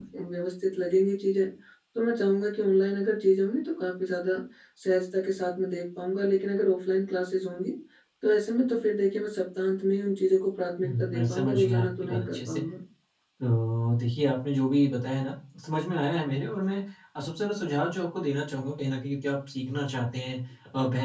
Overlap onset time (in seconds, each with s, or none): 10.8 s